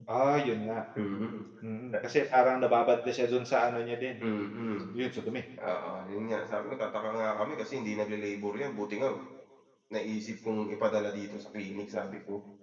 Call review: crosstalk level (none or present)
none